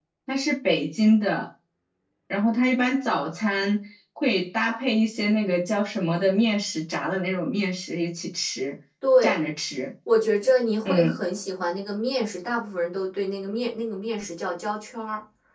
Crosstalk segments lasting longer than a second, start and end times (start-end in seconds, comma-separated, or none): none